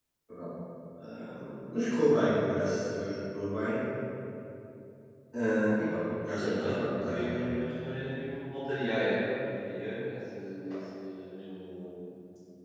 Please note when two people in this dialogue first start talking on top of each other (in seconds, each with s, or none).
6.4 s